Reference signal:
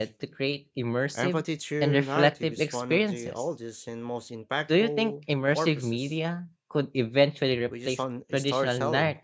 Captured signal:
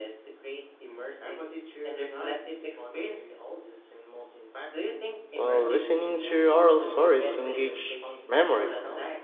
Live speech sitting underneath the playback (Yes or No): No